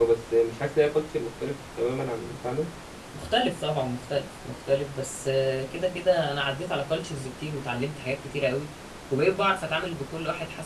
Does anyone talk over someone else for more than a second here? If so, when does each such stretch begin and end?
none

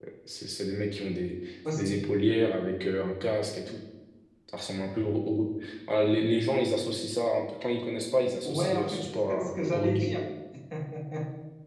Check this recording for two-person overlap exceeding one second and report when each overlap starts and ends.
8.4-10.1

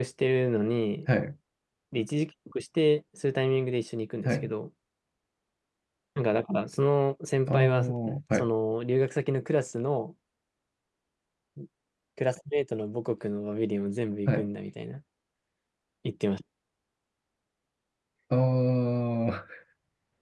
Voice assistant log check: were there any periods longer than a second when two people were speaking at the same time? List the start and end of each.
none

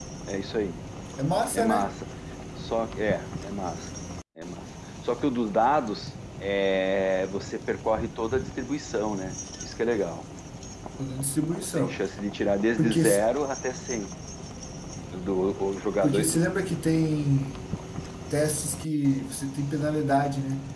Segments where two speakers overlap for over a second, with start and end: none

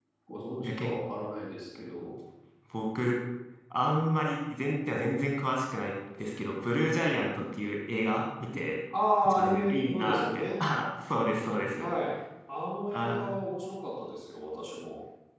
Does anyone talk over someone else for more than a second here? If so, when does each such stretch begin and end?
9.2-10.4

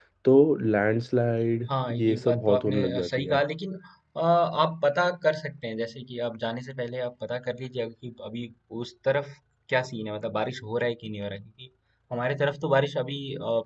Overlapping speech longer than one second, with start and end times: 1.7-3.4

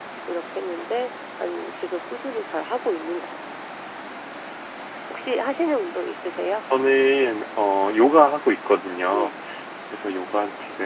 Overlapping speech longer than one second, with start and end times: none

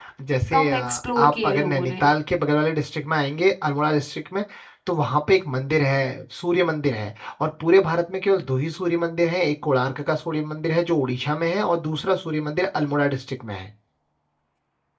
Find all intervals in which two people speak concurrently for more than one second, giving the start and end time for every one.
0.5-2.1

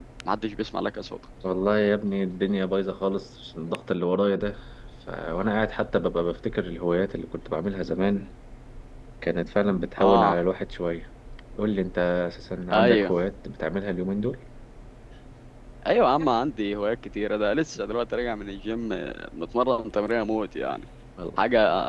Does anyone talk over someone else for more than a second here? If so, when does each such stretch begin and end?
none

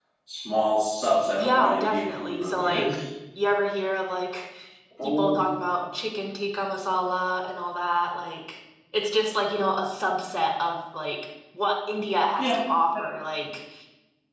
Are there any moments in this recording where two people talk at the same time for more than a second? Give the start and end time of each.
1.4-2.9

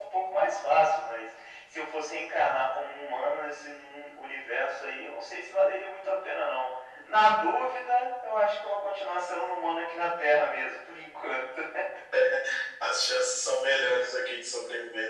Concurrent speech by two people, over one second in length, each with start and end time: none

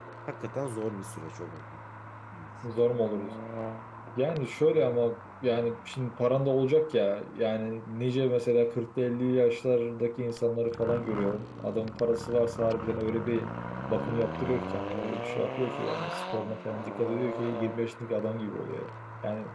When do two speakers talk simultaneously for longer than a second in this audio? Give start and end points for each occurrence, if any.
none

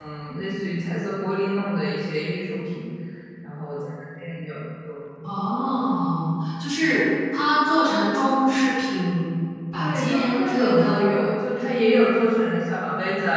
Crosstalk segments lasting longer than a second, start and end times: 9.8-11.0

